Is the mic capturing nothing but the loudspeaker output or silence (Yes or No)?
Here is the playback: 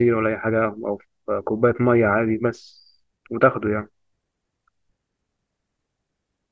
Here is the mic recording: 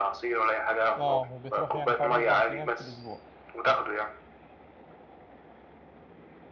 No